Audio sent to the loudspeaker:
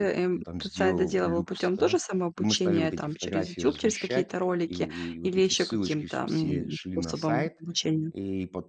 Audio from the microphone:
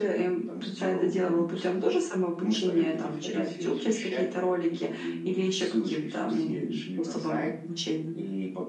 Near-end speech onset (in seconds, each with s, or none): none